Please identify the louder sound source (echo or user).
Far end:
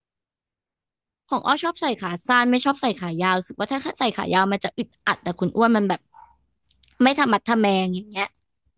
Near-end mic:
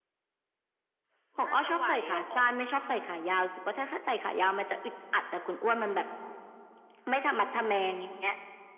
echo